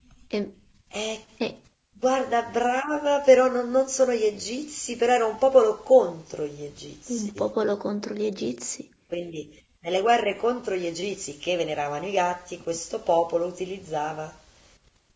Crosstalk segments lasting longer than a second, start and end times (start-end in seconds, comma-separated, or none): none